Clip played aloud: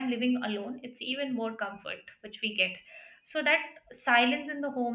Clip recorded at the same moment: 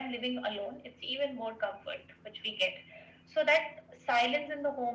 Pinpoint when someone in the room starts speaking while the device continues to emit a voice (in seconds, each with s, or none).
none